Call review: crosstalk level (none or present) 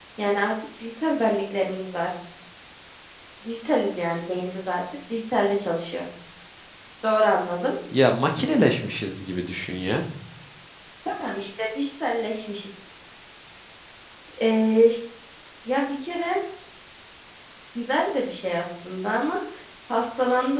none